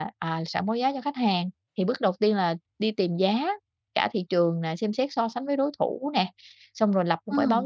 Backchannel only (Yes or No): Yes